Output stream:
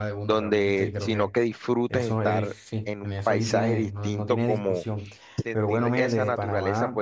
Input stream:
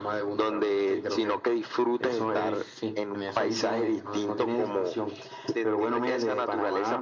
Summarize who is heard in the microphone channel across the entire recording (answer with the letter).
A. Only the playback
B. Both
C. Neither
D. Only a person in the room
A